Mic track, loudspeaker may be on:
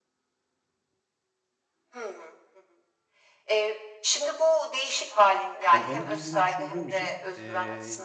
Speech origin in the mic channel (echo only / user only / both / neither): both